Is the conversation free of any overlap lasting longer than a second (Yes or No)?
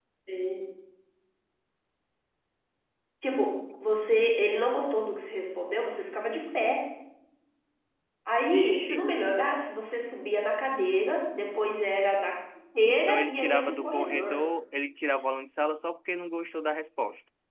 No